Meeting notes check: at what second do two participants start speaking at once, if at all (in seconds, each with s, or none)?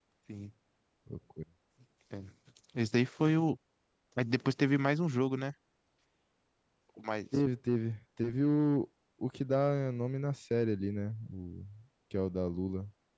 none